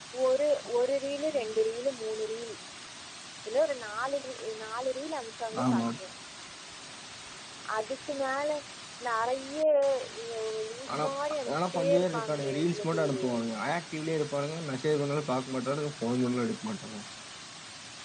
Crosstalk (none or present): present